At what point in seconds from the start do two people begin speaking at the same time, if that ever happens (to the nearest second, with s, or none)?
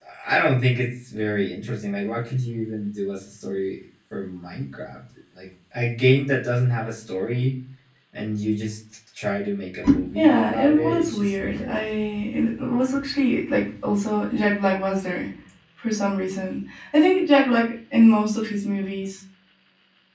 10 s